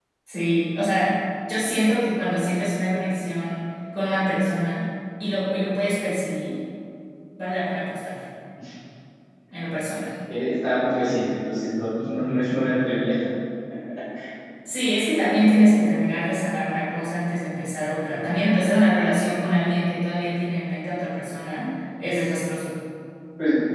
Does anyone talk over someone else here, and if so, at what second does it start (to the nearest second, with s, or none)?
none